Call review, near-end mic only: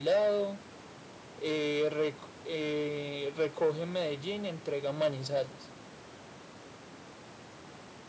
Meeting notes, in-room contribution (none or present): none